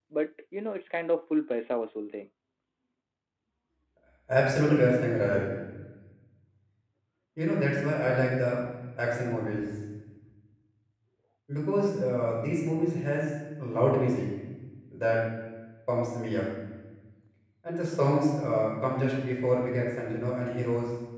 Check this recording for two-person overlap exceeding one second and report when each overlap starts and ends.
none

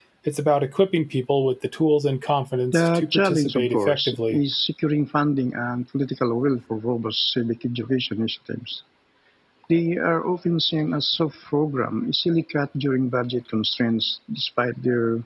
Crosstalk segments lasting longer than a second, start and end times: 2.7-4.4

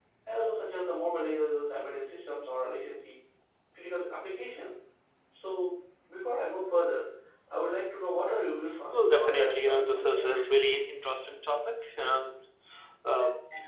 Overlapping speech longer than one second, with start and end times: 8.9-10.4

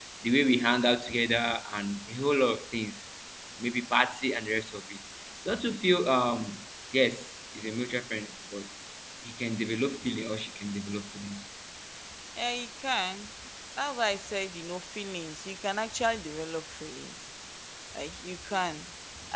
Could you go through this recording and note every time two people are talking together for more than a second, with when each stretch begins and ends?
none

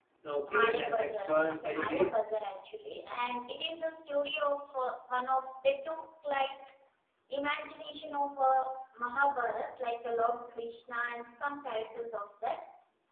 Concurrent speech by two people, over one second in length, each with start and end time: 0.5-2.2

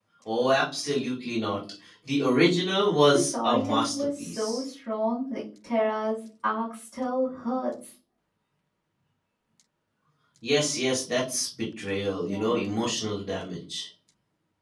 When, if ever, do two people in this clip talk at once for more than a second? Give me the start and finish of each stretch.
3.1-4.6

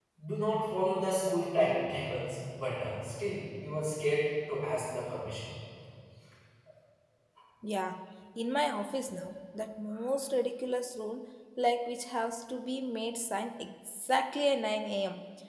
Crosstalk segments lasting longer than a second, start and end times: none

